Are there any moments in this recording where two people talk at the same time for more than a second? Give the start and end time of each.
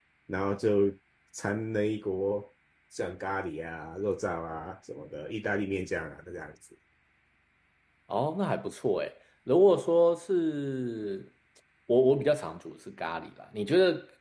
none

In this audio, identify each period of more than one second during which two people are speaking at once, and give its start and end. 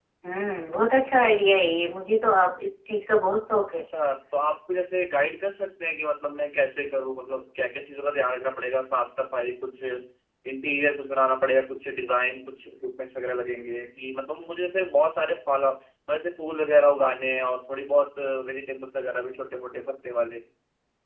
none

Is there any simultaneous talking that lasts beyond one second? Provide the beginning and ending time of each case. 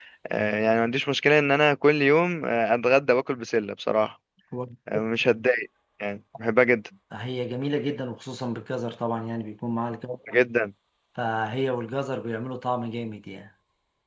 none

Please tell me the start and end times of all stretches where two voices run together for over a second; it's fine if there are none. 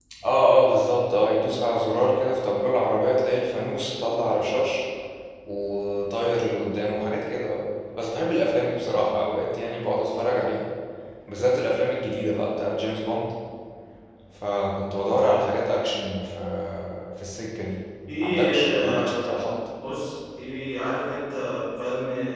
18.2-19.5

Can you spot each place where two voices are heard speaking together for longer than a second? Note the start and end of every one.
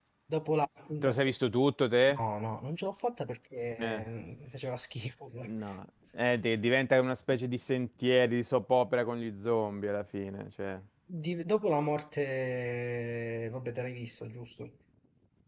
none

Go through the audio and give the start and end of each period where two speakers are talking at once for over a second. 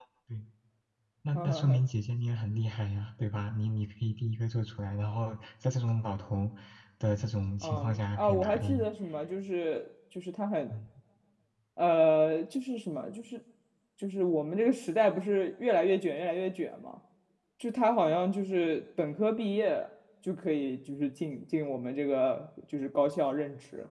7.6-8.9

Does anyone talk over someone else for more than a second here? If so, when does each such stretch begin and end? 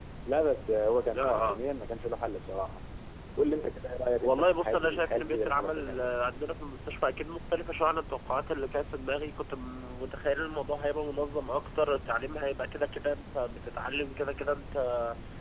4.2-6.1

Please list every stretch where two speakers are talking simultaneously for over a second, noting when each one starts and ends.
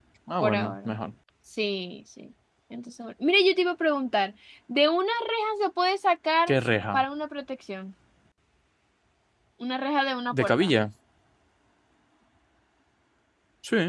none

